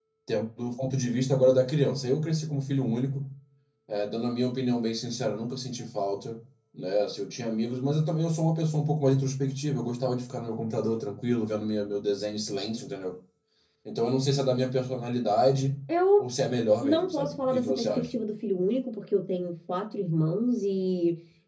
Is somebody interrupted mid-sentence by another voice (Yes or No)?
Yes